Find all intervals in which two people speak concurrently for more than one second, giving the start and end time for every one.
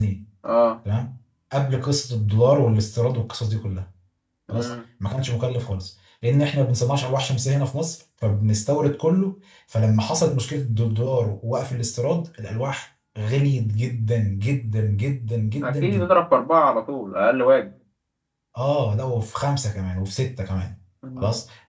none

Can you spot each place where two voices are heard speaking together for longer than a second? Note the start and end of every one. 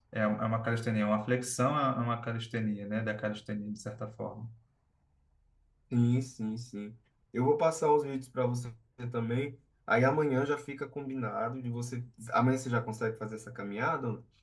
none

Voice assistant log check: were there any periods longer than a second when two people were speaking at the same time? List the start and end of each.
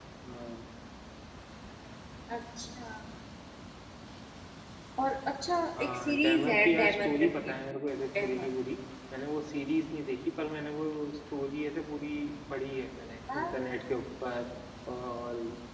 5.8-7.5

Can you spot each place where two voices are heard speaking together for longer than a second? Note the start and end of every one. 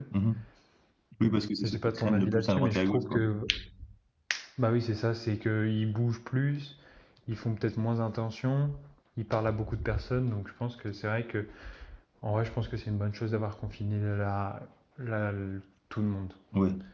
1.6-3.2

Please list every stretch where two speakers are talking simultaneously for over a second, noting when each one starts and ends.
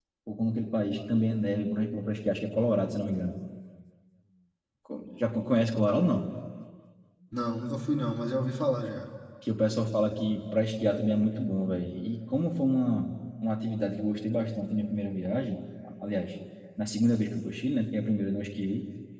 none

